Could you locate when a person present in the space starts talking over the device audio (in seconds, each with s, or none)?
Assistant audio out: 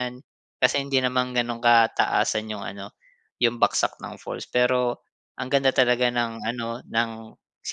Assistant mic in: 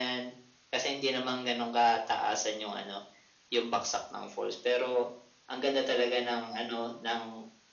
none